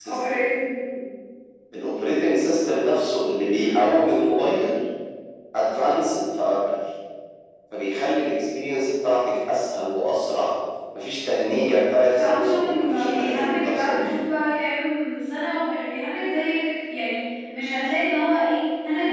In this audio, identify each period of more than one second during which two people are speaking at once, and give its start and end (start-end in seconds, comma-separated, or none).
12.1-14.1